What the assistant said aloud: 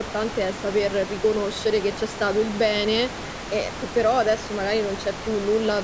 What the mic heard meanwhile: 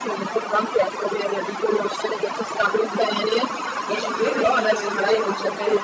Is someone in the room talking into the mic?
Yes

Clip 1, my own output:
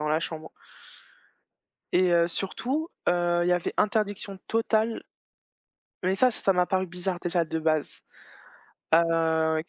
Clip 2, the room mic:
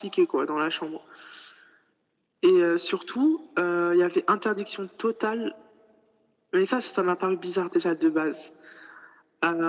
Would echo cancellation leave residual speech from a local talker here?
No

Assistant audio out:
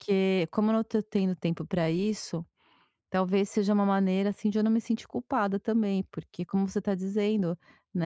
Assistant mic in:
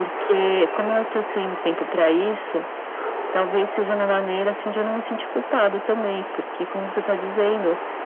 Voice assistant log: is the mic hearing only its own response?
Yes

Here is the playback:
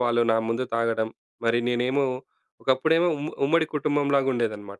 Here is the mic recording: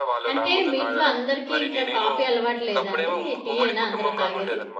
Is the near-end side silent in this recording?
No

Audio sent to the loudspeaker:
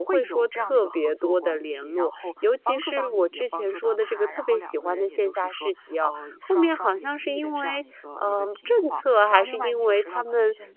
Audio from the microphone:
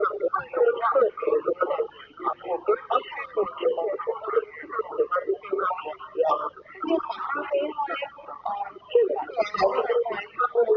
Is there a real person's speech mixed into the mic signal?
No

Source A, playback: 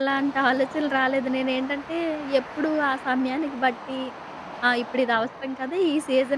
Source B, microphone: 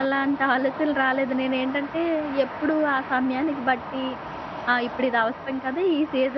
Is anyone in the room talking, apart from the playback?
No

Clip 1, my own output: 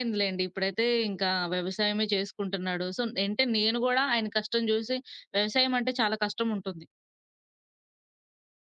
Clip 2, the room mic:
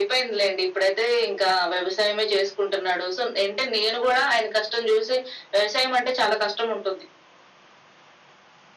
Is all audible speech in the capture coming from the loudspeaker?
Yes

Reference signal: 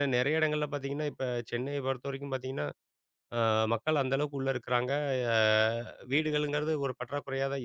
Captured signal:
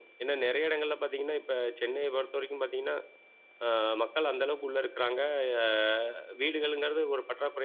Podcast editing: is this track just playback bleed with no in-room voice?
Yes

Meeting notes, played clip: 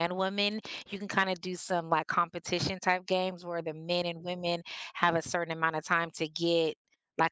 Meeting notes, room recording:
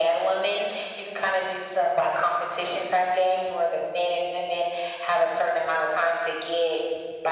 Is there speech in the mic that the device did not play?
No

